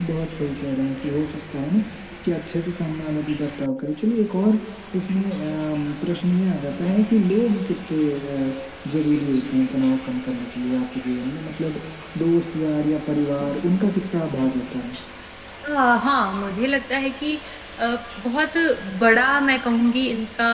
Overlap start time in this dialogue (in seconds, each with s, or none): none